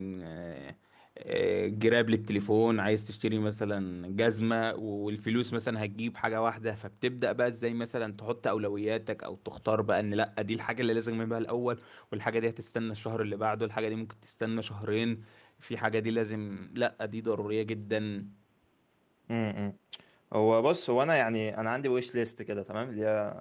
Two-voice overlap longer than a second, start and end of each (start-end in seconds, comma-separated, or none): none